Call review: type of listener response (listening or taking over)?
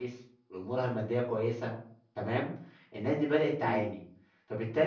listening